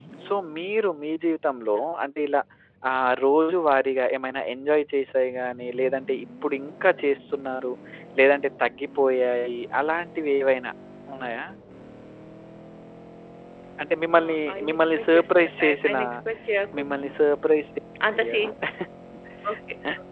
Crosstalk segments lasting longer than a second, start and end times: 14.2-16.0

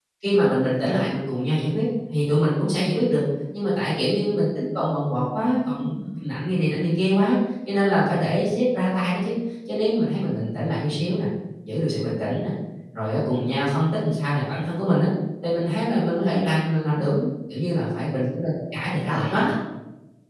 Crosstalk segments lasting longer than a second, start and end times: none

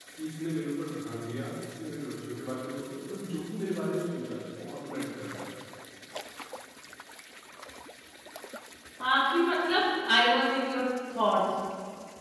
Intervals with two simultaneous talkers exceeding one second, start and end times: none

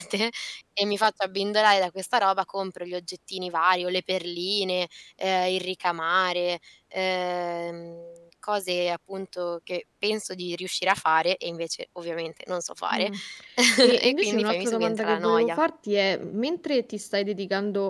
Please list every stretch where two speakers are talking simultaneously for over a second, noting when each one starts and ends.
14.0-15.6

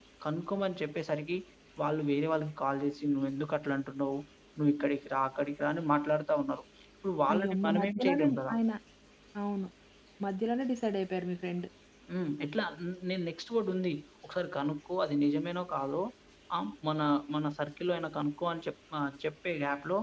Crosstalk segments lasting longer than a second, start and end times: 7.3-8.5

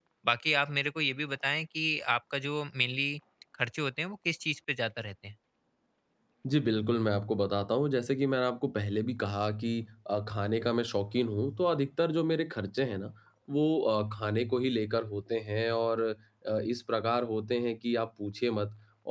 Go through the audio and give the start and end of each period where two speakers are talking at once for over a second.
none

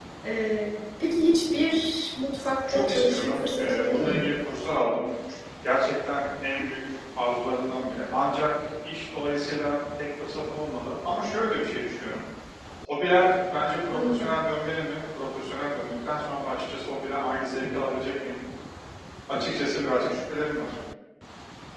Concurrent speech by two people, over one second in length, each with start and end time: 2.7-4.3

